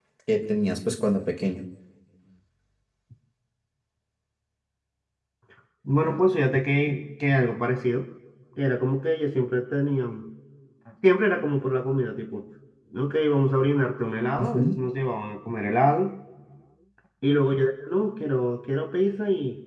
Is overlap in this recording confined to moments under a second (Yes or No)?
Yes